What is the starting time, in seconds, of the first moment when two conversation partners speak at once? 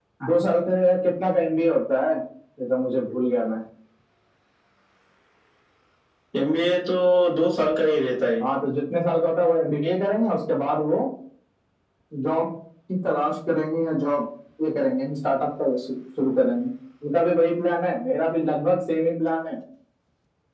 none

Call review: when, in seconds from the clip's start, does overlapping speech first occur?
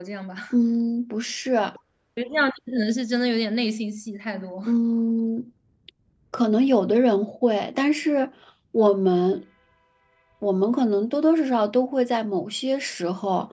none

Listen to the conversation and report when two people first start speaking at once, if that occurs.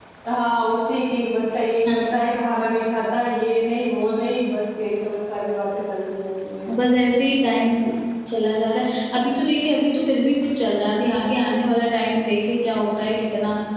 none

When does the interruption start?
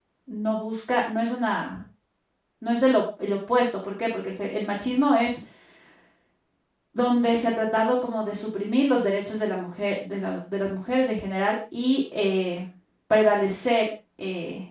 none

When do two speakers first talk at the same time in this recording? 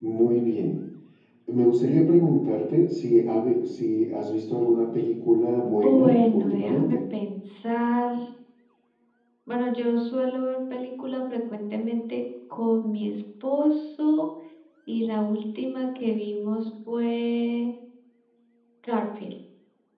5.6 s

